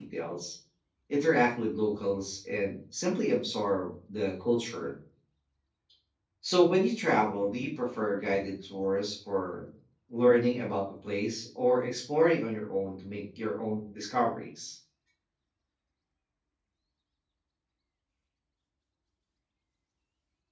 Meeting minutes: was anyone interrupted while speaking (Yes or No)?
No